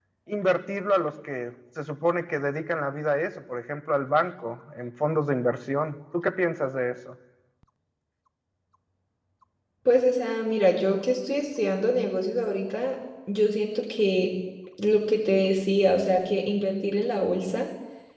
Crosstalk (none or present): none